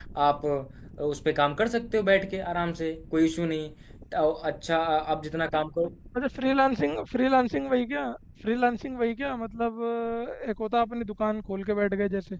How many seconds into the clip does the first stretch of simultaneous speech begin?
none

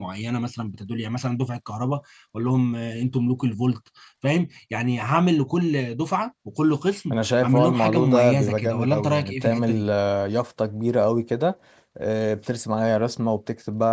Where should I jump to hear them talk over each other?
7.1 s

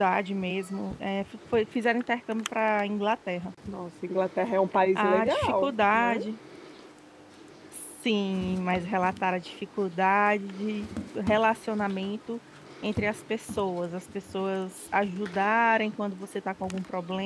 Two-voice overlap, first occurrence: 5.0 s

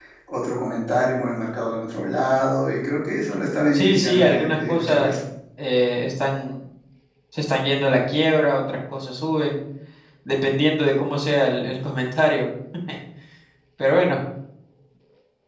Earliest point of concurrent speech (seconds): 3.7 s

